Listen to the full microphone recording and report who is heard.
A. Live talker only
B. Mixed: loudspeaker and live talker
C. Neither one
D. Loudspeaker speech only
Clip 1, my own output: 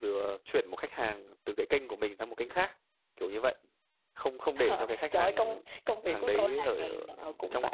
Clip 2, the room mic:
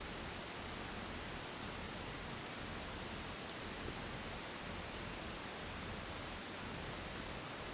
C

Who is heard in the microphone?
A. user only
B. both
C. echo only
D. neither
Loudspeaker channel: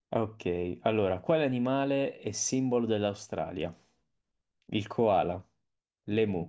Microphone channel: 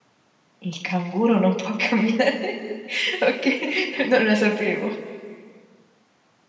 A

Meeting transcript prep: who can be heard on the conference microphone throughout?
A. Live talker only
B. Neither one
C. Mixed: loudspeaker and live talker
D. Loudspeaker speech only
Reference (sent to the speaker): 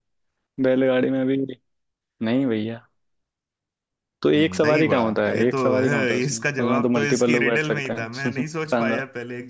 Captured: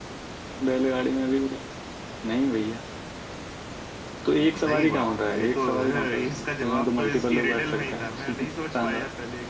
D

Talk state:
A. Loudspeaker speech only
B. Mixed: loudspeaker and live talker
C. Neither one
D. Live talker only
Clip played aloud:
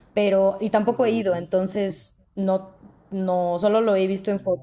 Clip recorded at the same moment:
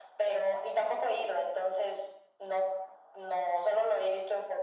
A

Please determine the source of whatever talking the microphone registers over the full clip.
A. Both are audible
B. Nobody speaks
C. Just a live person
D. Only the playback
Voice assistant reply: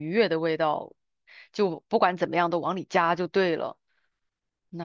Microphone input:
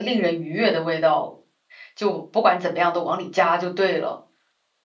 D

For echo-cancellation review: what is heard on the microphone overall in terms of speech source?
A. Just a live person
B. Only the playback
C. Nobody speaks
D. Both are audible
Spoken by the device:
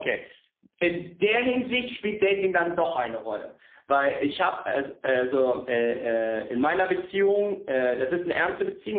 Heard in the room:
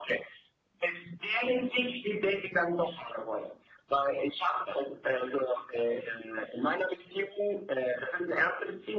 B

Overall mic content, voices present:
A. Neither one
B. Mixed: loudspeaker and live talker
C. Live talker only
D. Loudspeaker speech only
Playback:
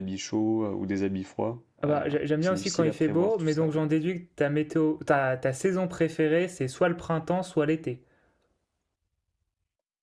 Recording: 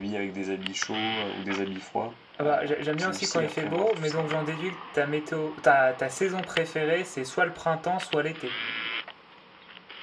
D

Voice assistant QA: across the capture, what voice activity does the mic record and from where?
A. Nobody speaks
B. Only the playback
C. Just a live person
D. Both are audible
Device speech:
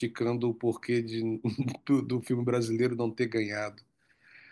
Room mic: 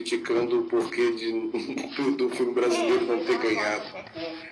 D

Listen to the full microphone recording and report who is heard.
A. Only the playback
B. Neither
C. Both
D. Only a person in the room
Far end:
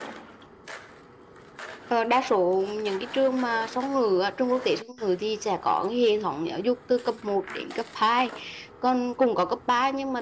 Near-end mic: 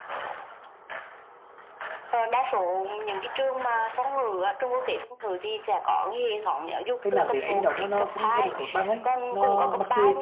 C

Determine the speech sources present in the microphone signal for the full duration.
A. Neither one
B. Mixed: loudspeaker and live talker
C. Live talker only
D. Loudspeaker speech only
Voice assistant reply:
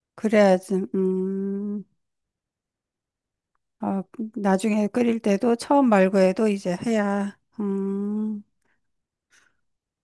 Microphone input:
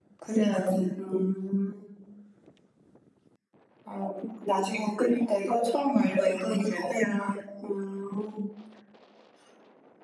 D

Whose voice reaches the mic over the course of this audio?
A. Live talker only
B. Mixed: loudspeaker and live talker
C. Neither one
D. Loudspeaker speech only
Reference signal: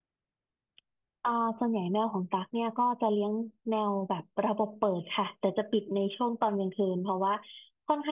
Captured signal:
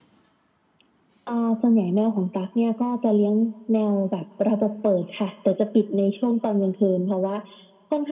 D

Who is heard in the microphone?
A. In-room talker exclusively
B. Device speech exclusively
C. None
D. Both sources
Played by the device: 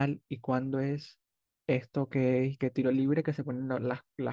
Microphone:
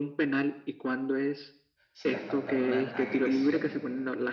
D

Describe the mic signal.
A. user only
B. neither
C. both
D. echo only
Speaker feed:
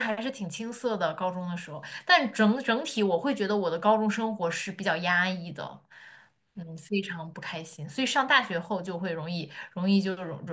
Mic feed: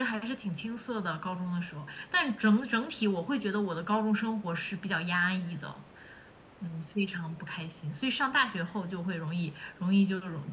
D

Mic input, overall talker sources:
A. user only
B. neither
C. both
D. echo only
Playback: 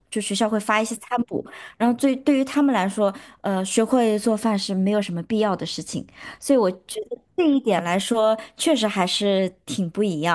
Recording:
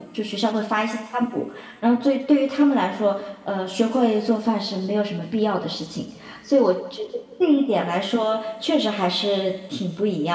D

